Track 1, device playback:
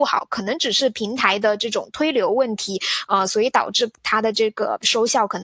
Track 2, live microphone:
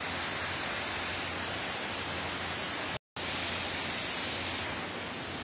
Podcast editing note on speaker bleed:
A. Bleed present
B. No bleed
B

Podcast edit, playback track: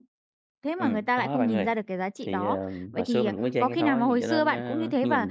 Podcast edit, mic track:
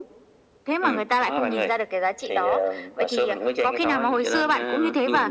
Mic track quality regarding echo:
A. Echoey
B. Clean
A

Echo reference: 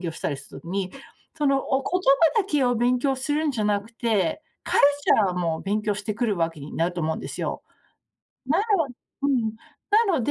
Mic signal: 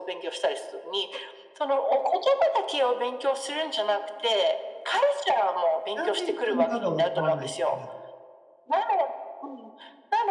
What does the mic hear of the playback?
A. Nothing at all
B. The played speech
B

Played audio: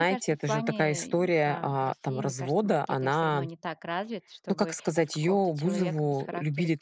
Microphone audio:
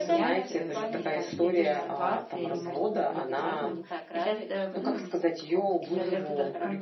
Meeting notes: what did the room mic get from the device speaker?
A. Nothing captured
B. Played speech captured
B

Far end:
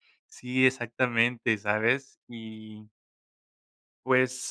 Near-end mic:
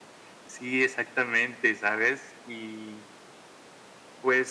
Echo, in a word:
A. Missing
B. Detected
B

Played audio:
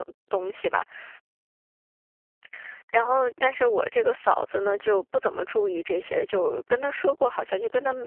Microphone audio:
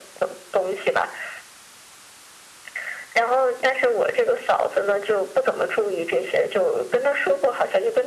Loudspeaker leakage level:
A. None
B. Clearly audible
B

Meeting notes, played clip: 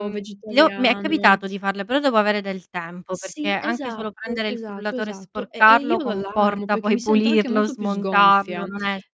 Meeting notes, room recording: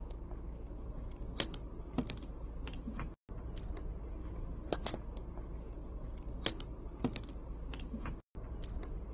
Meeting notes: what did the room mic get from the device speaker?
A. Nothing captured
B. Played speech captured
A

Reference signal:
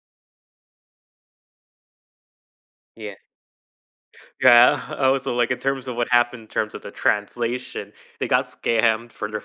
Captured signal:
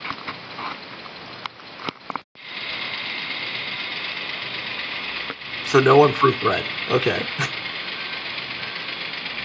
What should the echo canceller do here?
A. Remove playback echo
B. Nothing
B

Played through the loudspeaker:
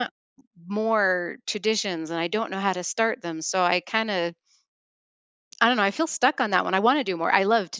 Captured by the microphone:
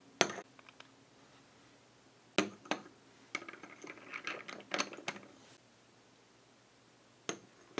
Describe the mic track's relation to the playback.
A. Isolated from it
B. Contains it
A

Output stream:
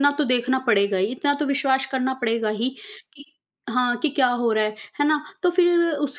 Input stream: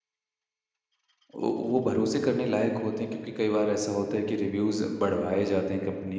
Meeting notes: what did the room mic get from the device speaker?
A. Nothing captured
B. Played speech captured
A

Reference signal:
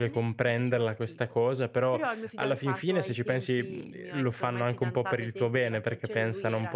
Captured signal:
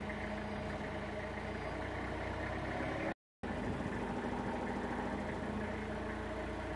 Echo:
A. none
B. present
A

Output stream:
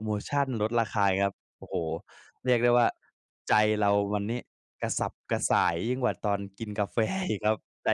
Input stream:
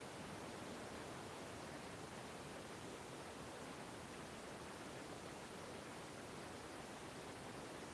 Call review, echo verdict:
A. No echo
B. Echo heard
A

